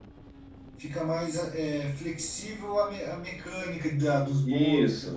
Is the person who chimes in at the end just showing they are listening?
No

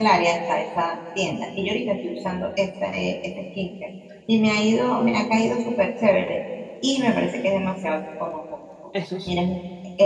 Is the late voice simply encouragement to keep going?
Yes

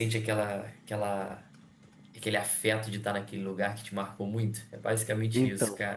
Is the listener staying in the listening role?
No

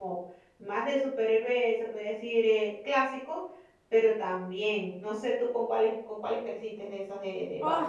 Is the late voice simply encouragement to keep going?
No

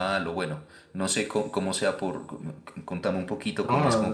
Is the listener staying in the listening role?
No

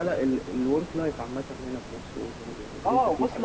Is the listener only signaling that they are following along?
No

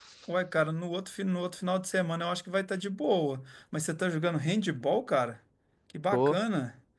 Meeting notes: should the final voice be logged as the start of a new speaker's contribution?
No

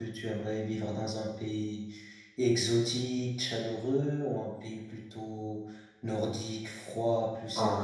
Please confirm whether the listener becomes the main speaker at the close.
Yes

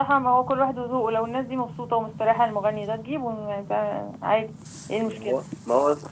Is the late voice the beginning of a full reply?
Yes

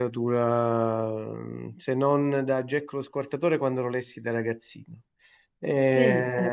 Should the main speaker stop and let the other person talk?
No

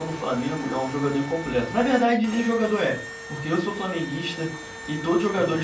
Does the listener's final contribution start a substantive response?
No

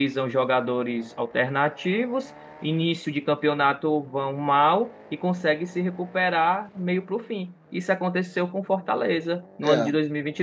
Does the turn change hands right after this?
No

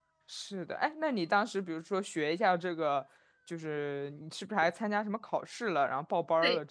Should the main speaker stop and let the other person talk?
Yes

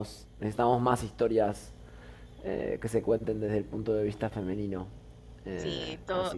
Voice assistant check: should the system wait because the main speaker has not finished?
No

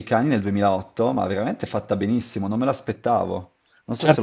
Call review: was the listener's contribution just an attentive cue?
No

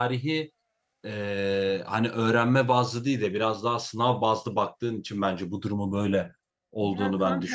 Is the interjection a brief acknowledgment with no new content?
No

